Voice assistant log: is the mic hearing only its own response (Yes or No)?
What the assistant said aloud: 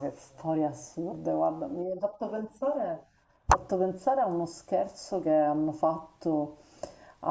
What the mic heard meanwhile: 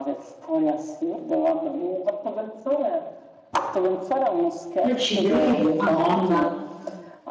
No